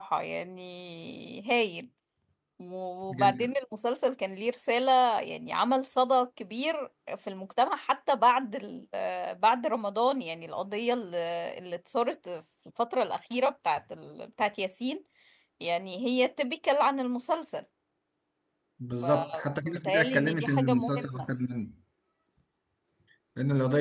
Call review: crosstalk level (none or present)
present